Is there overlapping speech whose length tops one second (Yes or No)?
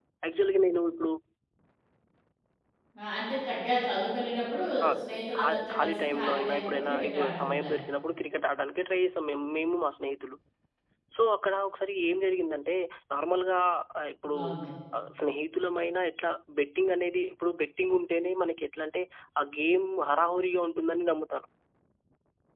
Yes